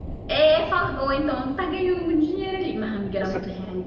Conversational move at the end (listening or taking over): listening